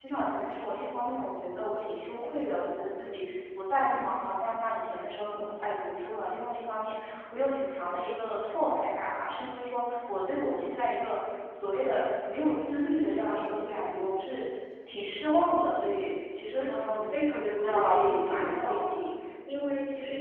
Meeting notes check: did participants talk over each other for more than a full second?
Yes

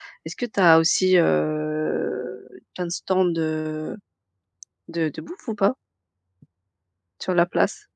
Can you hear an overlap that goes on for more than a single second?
No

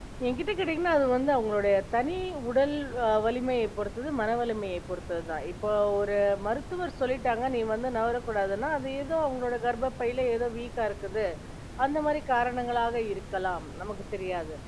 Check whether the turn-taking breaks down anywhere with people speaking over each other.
No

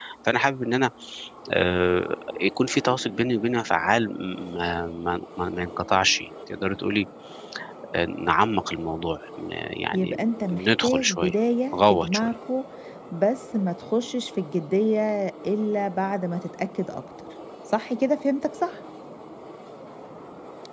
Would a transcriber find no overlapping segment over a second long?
No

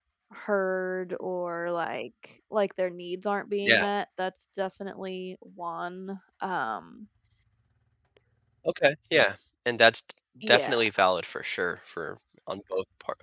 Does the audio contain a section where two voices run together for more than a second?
No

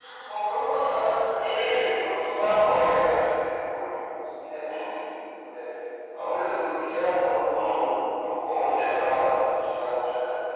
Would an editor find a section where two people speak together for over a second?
Yes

